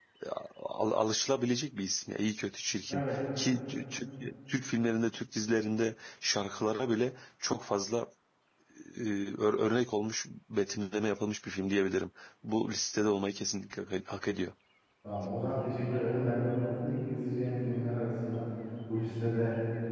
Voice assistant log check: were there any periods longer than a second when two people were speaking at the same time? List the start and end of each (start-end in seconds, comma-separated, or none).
none